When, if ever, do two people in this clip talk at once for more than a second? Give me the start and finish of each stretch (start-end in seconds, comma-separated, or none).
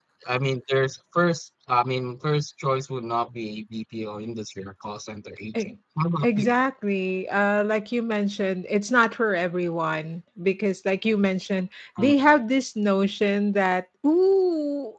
none